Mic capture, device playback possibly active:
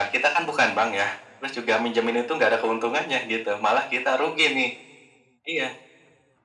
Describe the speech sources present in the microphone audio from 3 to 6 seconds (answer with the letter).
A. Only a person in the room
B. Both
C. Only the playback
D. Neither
C